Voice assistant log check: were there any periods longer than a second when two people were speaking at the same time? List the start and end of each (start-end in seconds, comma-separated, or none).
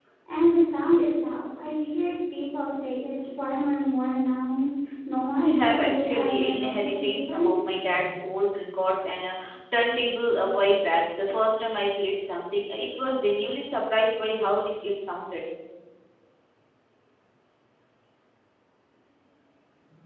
5.4-7.6